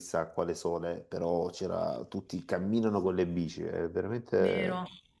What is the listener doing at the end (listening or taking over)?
taking over